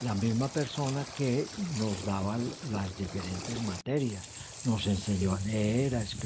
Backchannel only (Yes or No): Yes